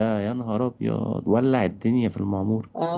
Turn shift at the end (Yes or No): Yes